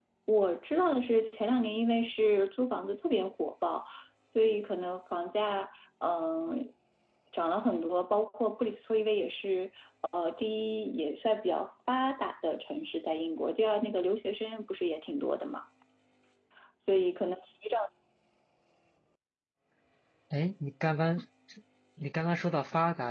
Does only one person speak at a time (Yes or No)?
Yes